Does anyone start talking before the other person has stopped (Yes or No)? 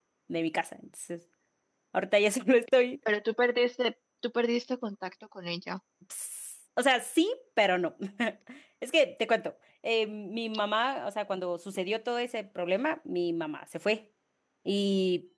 No